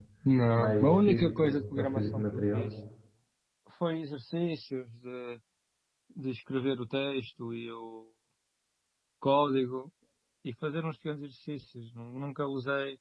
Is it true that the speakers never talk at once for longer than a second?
No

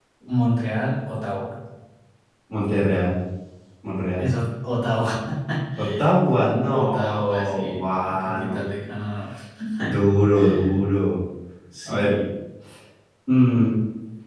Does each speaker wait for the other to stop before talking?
No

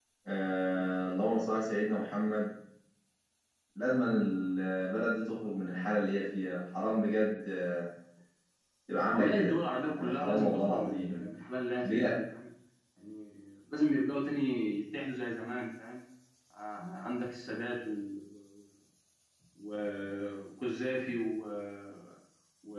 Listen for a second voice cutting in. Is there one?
Yes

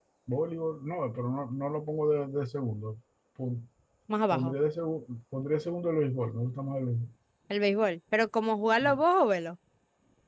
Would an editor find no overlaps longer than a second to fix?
Yes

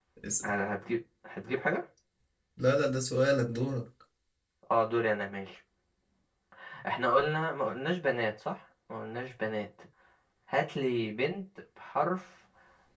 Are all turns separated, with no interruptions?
Yes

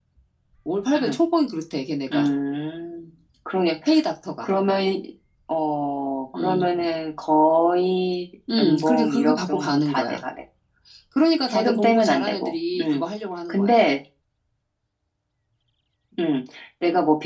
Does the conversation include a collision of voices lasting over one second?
Yes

